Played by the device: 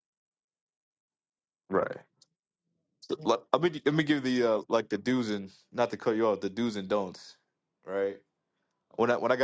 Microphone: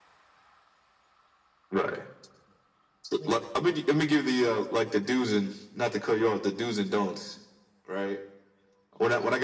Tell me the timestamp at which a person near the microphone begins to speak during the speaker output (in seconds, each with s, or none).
none